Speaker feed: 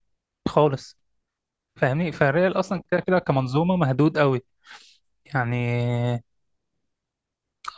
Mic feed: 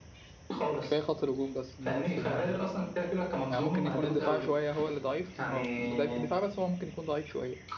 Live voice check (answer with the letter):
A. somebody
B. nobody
A